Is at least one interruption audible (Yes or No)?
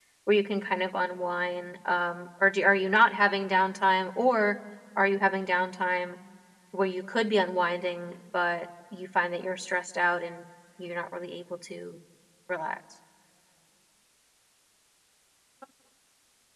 No